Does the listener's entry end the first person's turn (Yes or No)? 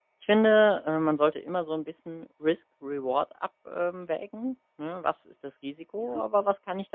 No